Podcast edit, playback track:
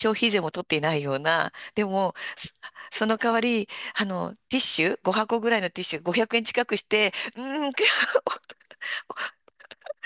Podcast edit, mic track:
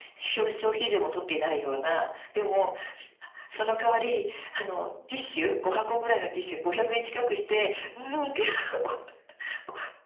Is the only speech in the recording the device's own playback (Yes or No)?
Yes